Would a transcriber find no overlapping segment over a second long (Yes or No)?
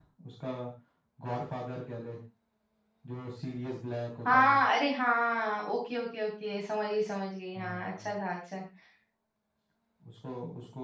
Yes